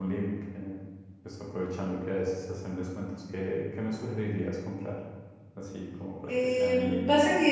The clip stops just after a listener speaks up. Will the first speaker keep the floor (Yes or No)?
No